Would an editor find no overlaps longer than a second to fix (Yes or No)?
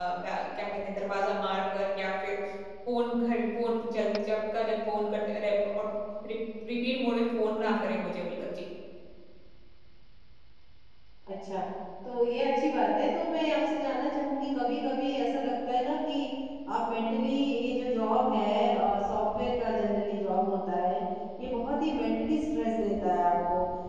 Yes